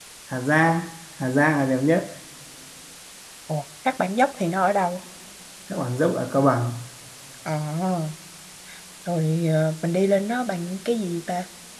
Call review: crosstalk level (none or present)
none